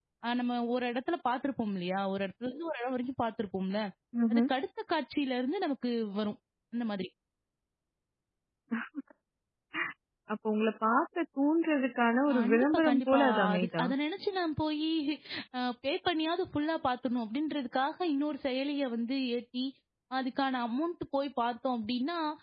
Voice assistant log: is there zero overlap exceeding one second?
No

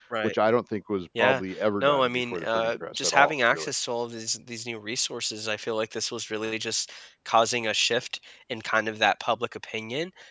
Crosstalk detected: Yes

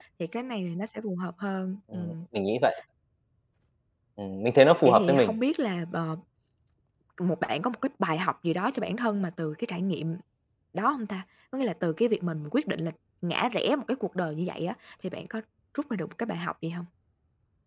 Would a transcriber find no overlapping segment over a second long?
Yes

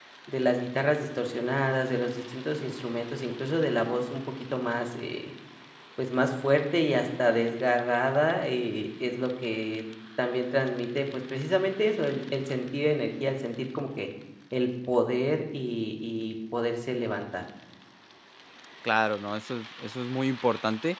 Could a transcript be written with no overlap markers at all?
Yes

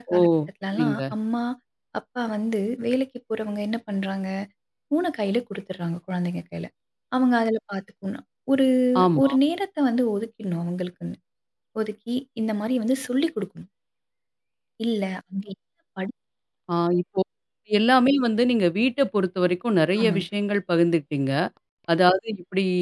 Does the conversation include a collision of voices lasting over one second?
No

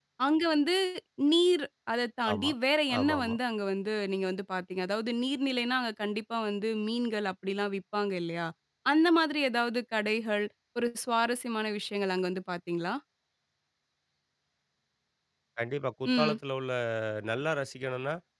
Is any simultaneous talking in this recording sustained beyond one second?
No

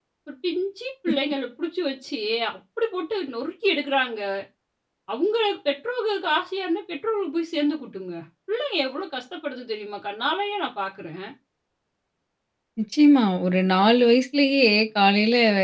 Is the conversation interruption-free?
Yes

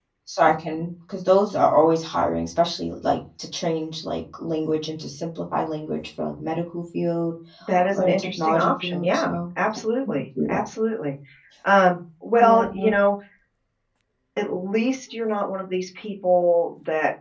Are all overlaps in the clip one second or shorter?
No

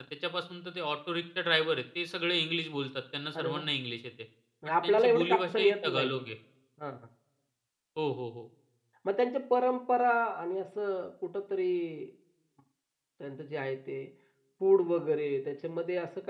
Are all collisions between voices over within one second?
No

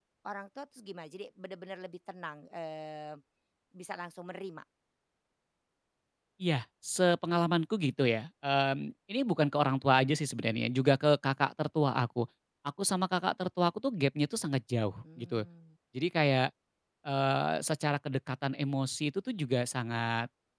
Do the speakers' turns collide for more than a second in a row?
No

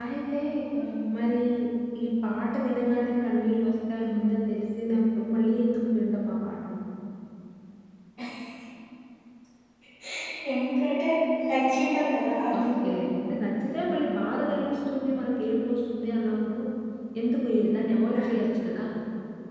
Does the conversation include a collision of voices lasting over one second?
No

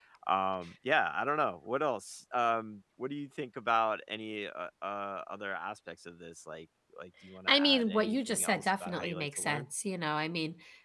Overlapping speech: Yes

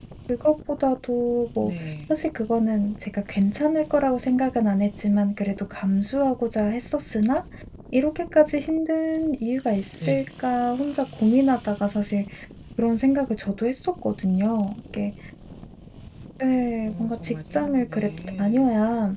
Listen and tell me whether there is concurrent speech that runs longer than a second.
Yes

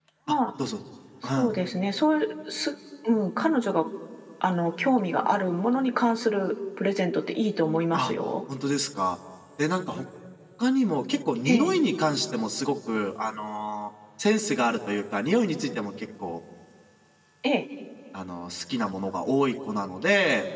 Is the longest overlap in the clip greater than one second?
No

